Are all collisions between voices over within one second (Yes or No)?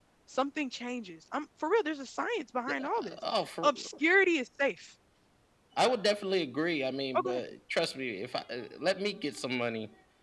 Yes